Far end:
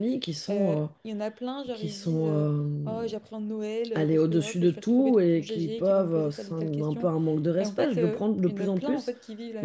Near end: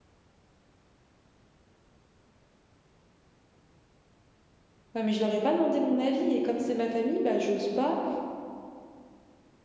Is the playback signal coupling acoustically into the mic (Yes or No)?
No